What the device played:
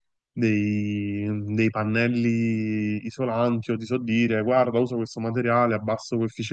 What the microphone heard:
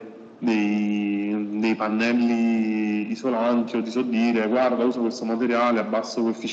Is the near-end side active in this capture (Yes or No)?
No